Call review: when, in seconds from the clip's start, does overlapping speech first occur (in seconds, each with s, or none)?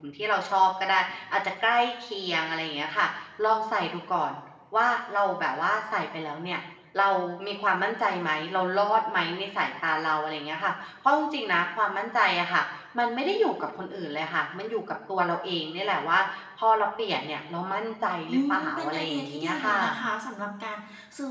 18.3 s